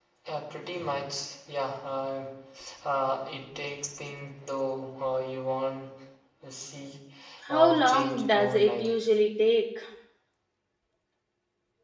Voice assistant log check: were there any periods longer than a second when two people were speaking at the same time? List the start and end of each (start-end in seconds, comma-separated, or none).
7.5-8.9